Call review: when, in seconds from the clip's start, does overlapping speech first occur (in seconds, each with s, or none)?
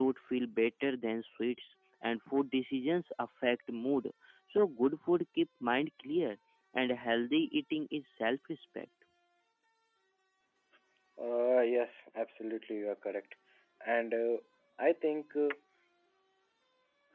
none